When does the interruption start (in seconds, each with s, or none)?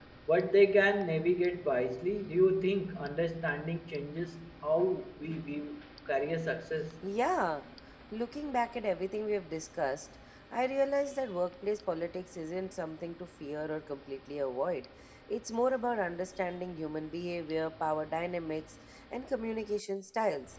none